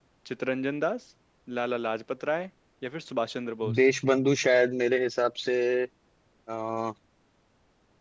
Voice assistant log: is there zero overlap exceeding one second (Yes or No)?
Yes